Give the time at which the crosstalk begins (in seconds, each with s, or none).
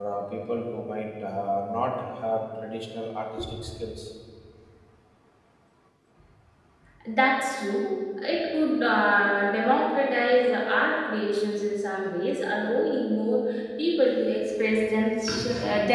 none